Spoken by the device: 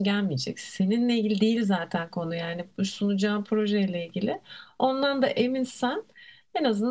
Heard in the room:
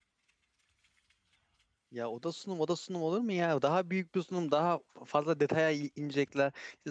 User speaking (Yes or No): Yes